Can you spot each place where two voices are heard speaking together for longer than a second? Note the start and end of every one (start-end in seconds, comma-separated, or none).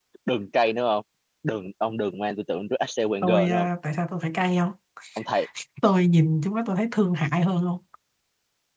none